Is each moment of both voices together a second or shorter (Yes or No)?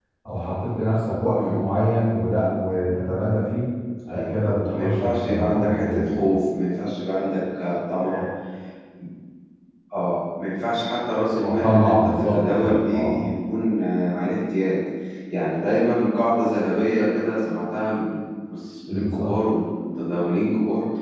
No